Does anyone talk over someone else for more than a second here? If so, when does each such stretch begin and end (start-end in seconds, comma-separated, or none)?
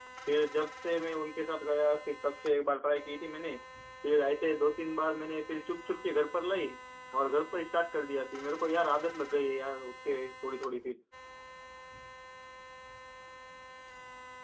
none